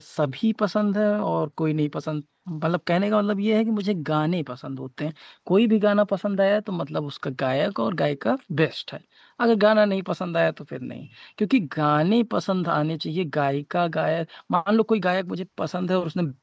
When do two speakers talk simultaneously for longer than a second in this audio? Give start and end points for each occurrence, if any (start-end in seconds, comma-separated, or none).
none